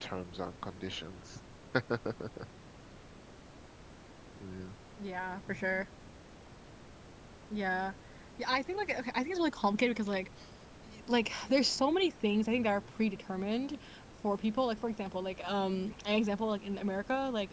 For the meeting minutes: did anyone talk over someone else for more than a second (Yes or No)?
No